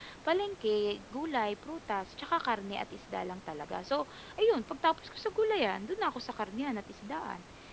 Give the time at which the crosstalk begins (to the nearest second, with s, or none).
none